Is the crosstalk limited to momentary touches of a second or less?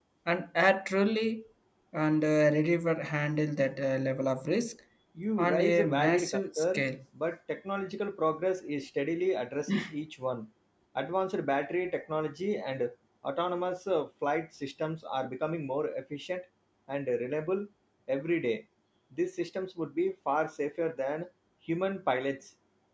No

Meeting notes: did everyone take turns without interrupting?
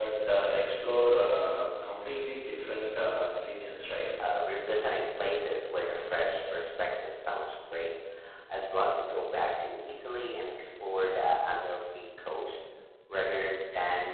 Yes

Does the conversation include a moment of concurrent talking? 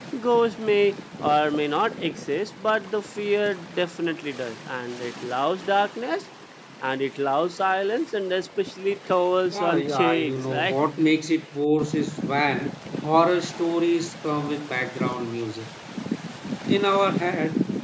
Yes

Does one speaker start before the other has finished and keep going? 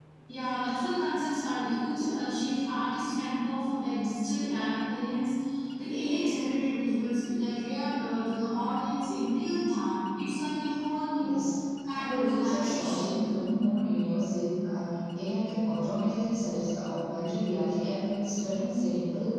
Yes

